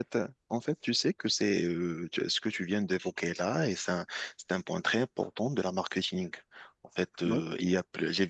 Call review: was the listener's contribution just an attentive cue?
Yes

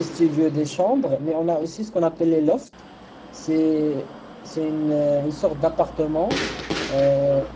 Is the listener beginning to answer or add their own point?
No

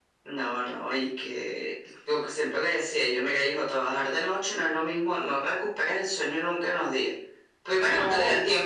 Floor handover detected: No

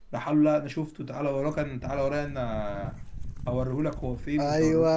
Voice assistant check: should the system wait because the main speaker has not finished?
No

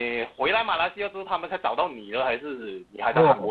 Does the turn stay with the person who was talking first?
No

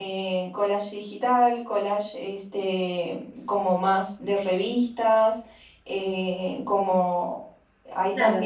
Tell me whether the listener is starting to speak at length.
Yes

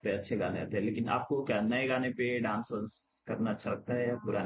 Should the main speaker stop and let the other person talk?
Yes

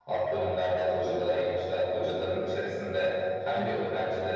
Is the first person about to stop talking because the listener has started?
No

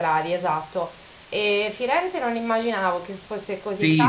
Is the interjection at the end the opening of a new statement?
Yes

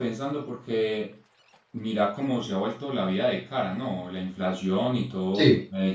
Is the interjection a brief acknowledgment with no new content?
Yes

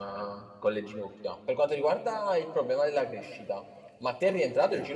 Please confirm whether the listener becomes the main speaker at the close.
No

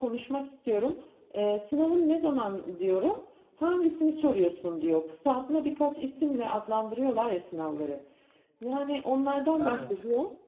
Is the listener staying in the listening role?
Yes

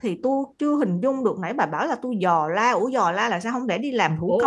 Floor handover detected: Yes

